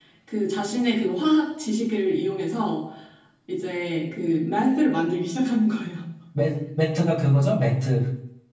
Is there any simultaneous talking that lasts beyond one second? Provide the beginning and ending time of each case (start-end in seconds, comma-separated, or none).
none